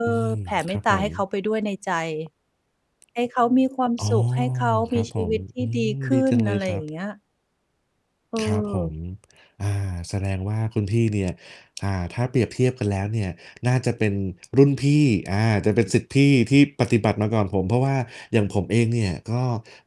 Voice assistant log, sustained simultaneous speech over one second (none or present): present